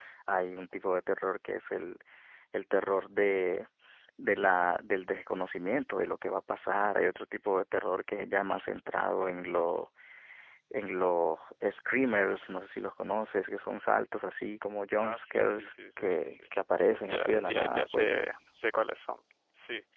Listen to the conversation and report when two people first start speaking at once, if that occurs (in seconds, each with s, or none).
15.0 s